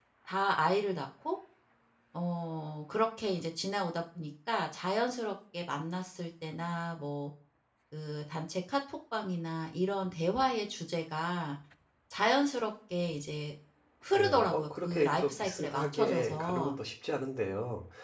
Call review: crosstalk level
present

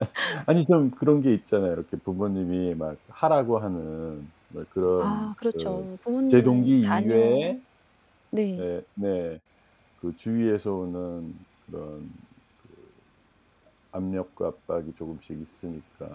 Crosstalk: present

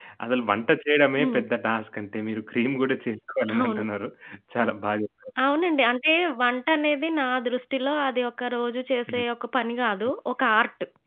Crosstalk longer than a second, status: none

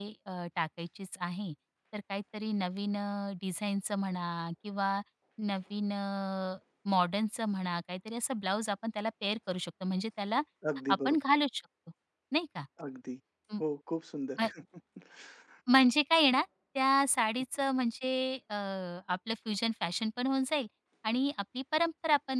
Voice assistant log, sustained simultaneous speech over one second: none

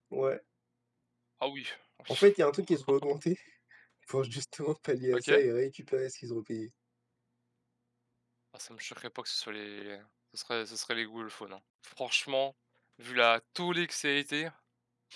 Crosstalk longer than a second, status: none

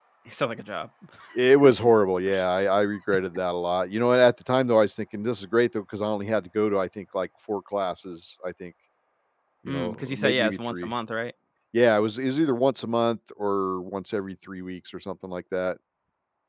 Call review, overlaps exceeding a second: present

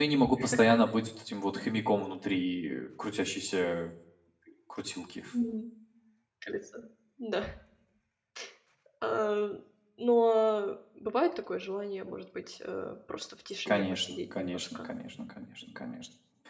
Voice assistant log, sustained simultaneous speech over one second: present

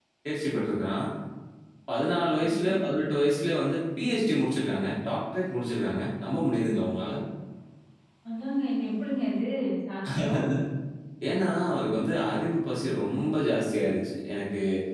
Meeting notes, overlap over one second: none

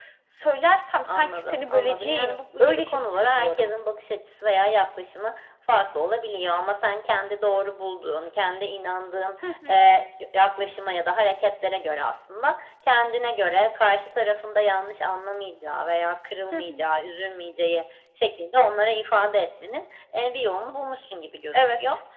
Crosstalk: present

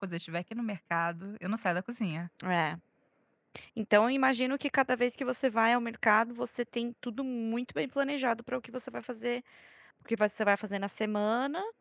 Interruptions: none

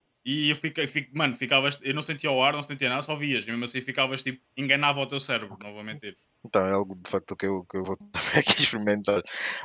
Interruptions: none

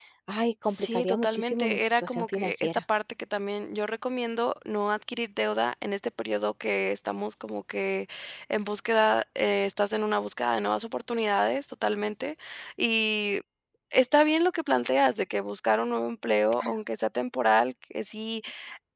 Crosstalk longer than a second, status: present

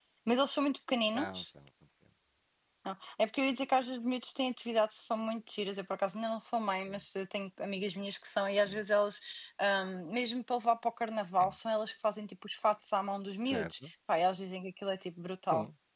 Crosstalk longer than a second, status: none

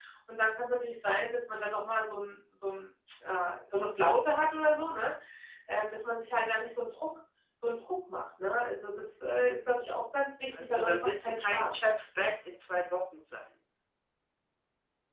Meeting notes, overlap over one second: present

